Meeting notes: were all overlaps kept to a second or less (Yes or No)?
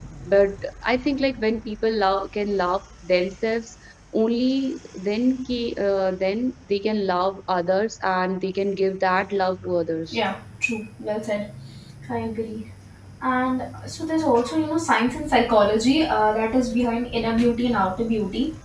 Yes